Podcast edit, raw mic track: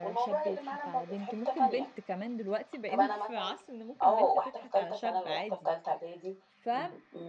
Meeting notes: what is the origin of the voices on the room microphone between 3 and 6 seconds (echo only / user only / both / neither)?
both